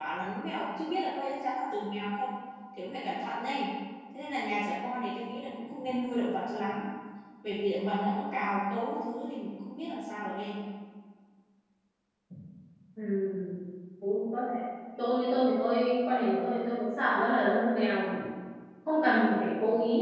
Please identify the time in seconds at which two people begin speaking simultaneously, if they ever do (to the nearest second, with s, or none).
none